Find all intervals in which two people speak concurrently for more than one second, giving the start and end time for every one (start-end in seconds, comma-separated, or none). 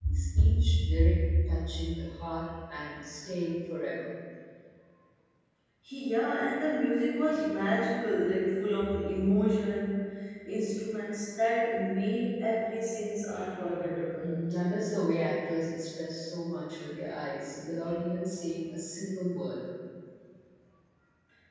none